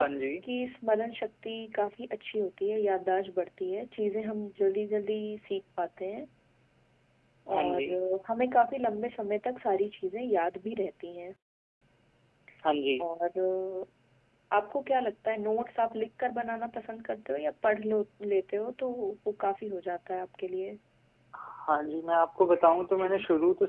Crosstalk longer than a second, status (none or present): none